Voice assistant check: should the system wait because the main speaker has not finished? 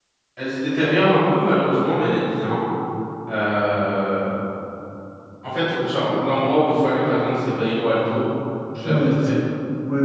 No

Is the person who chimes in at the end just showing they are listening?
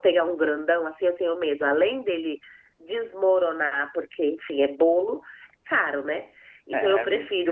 Yes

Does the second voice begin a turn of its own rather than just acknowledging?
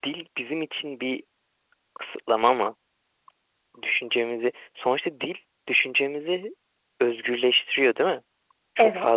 No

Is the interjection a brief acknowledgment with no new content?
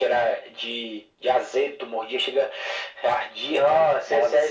No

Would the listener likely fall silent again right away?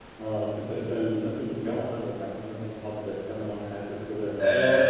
No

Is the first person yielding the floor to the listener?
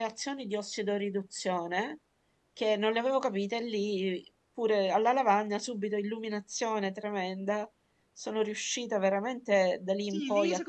Yes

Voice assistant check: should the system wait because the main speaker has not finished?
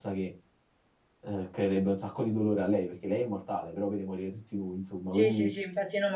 No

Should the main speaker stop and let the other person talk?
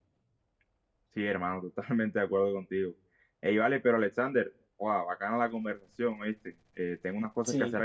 No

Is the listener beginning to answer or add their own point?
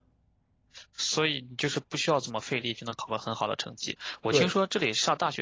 No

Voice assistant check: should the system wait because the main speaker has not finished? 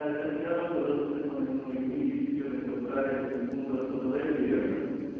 No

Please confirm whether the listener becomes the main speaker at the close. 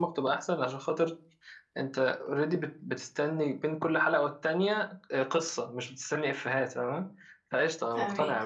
No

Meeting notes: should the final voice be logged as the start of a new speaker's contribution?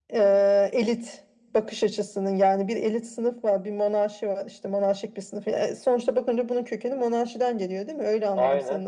No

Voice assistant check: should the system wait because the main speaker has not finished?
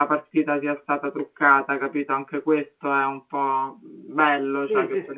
No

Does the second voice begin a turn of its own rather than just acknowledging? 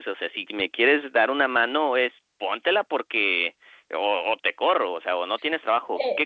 Yes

